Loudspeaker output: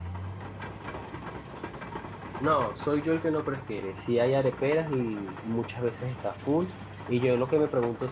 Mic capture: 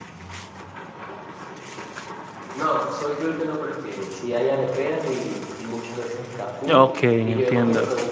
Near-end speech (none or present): present